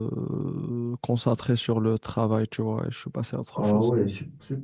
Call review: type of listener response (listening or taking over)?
taking over